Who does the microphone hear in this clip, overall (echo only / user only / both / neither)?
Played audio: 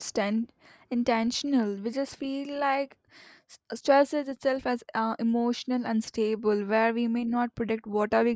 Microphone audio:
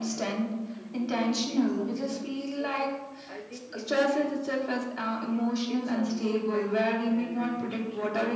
both